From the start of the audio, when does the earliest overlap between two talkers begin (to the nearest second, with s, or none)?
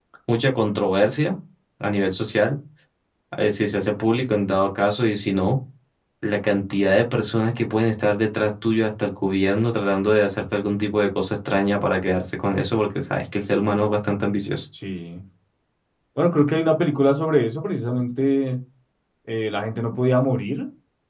none